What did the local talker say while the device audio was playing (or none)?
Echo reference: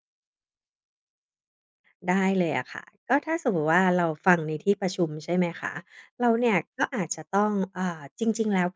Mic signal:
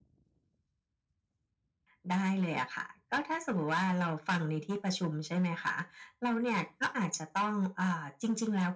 none